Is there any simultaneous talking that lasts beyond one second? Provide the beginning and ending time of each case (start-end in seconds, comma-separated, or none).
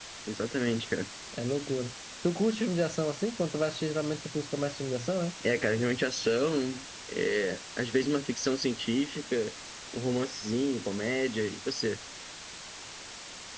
none